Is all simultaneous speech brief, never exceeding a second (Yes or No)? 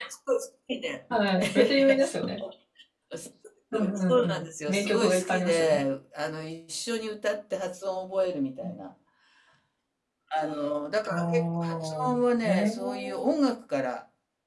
No